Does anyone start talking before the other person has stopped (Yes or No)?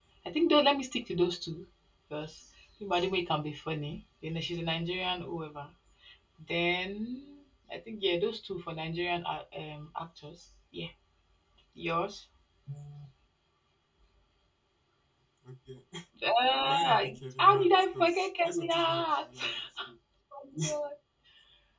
Yes